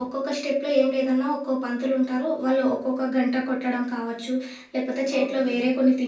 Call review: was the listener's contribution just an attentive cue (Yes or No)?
Yes